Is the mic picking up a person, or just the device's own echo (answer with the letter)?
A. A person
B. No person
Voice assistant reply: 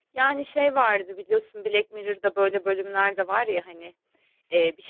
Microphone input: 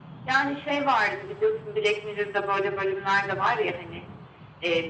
B